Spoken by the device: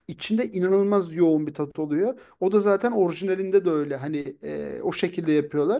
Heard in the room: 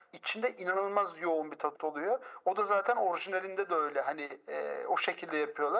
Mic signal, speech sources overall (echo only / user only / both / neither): echo only